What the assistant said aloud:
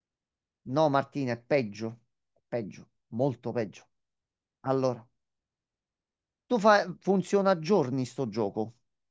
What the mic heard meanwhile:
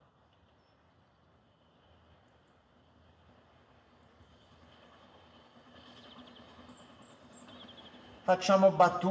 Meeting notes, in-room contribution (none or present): present